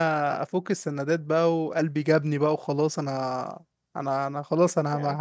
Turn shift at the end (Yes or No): No